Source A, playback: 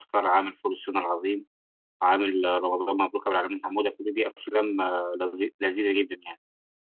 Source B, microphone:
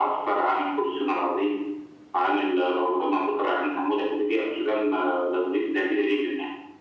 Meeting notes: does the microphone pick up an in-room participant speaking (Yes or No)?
No